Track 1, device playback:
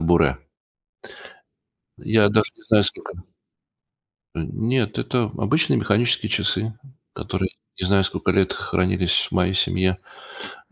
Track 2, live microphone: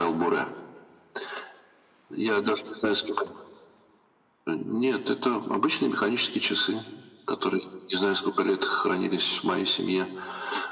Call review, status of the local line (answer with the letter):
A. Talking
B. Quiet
B